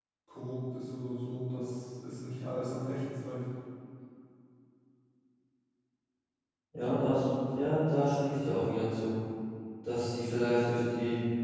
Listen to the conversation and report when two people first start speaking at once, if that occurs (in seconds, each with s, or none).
none